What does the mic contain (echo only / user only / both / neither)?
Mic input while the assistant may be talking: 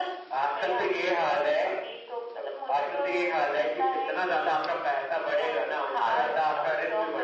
echo only